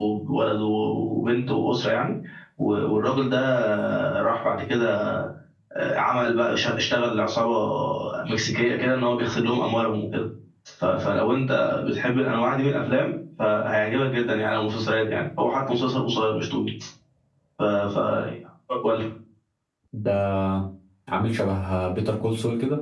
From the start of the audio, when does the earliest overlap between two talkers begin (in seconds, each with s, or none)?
none